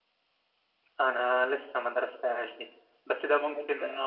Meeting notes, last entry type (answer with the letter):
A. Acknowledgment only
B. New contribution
A